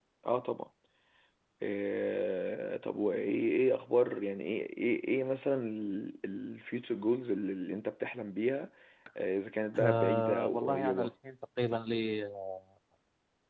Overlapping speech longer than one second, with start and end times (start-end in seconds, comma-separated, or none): 9.8-11.1